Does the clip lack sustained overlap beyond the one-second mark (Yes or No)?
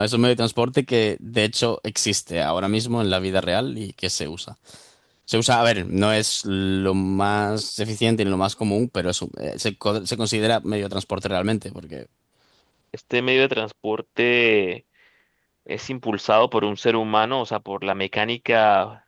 Yes